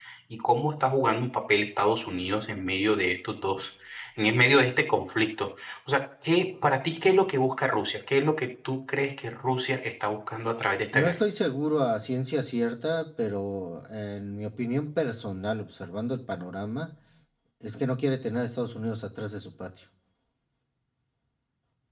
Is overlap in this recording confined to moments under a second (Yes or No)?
Yes